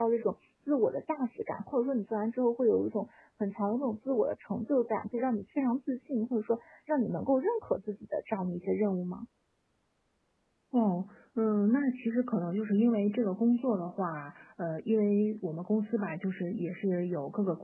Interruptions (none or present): none